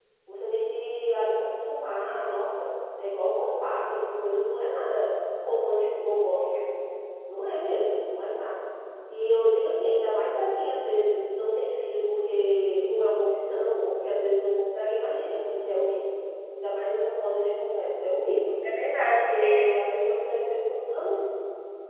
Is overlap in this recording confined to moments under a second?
Yes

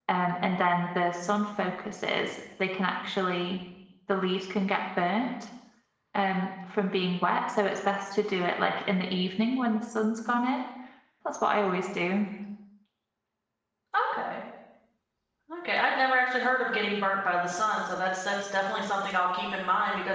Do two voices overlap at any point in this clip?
No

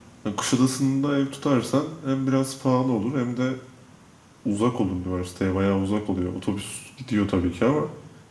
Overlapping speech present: No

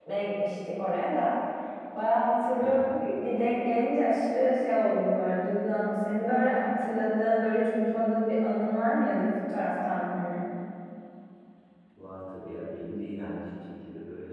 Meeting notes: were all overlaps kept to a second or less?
Yes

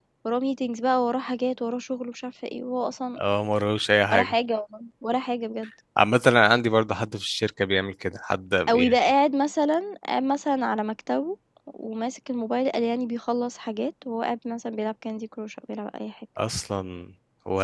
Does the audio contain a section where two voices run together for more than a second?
No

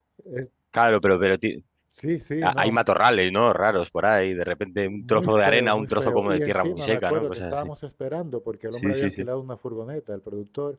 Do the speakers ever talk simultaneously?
Yes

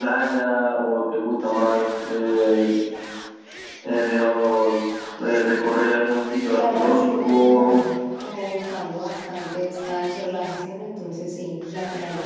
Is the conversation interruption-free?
No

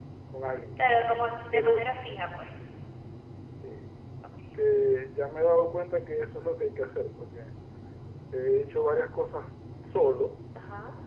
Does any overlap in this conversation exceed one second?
No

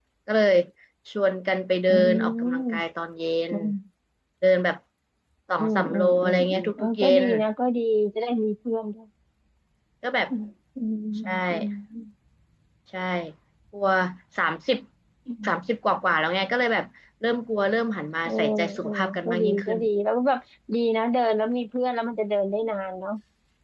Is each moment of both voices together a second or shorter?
No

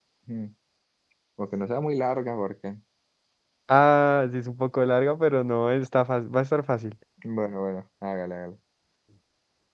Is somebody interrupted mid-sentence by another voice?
No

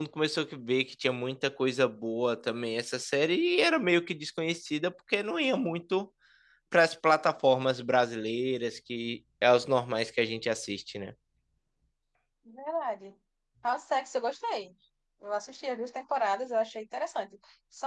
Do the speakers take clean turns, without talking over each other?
Yes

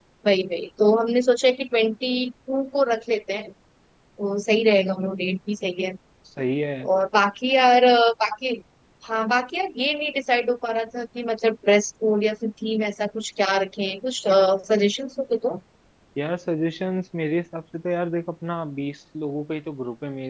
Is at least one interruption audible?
No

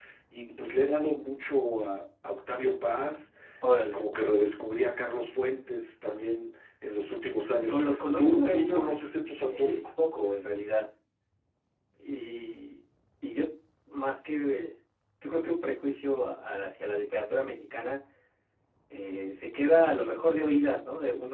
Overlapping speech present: Yes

